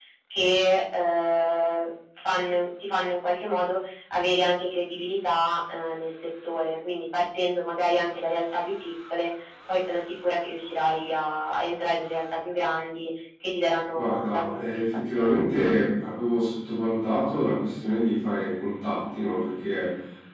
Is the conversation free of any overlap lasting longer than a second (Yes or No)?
No